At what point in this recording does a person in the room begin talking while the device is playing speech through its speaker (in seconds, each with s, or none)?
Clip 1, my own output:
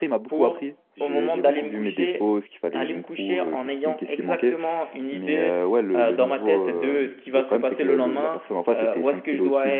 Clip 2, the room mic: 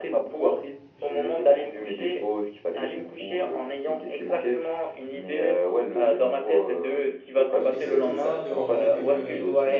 7.5 s